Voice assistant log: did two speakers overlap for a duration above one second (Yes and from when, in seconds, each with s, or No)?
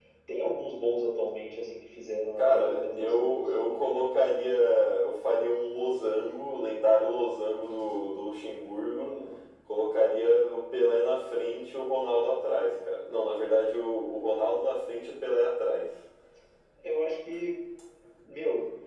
Yes, from 2.4 s